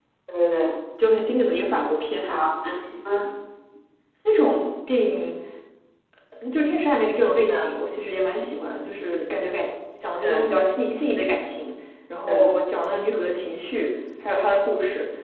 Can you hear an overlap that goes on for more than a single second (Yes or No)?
No